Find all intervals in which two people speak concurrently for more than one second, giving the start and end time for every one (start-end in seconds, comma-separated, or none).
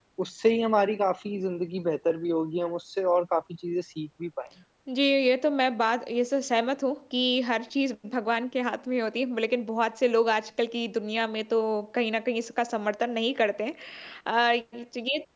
none